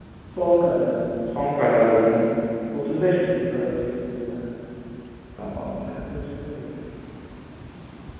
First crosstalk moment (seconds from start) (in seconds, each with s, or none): none